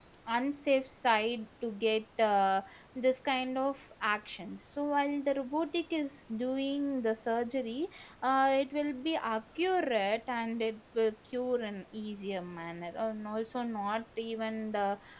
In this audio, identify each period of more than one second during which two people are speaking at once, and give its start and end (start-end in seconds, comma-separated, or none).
none